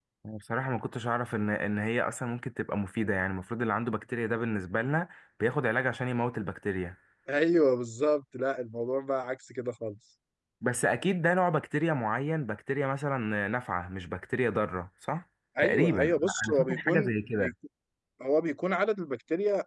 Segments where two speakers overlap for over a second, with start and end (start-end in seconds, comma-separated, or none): 15.6-17.5